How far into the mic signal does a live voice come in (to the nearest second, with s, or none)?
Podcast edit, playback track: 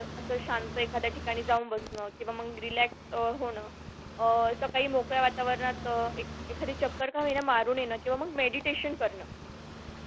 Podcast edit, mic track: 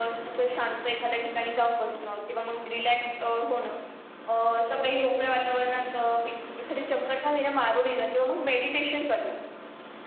none